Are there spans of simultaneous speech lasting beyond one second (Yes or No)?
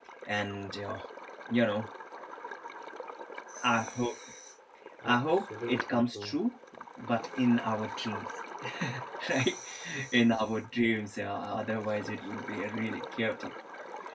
Yes